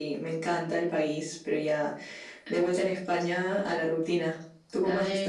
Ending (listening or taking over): taking over